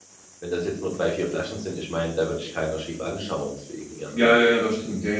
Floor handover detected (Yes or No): Yes